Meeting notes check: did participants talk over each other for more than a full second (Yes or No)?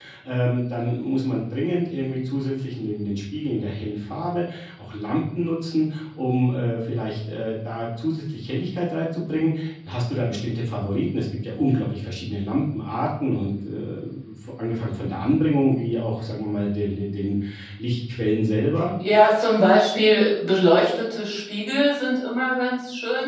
No